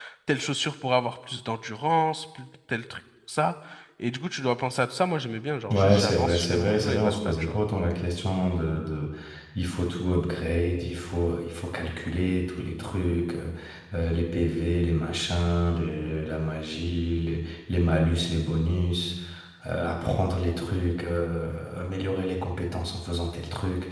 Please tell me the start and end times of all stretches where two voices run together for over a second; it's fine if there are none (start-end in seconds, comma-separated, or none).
5.7-7.6